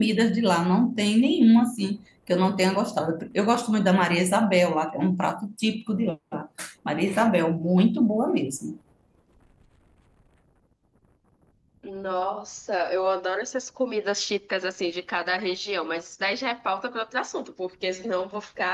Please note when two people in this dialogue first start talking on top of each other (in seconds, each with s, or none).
none